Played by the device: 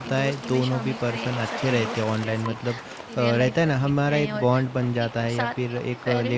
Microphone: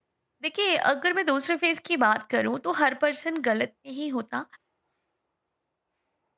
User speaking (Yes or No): Yes